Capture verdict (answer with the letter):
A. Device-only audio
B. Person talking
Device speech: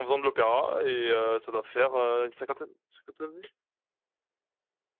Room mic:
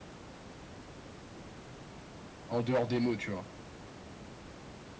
B